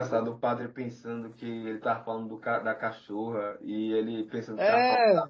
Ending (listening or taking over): listening